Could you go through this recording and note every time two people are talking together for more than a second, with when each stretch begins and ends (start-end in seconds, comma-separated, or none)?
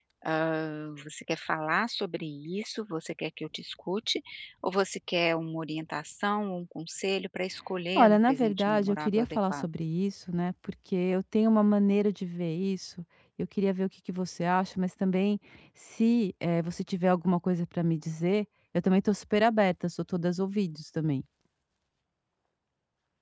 8.0-9.7